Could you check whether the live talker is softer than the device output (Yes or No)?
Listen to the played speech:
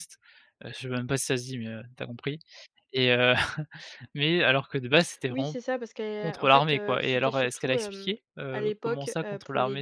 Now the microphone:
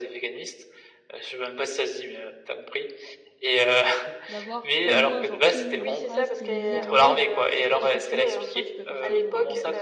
Yes